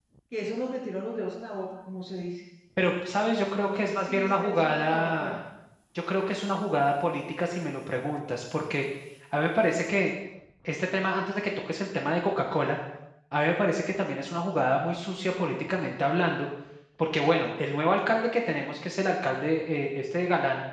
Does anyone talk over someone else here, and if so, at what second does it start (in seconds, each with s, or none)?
3.4 s